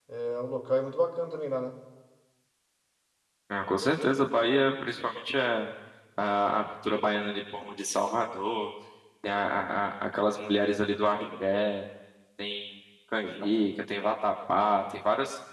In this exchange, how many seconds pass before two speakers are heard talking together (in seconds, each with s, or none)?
none